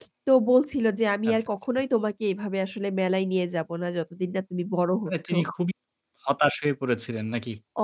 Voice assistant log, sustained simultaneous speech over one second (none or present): none